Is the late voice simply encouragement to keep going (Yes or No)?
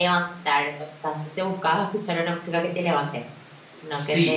No